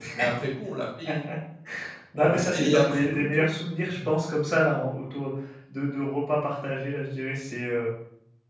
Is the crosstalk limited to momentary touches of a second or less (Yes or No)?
No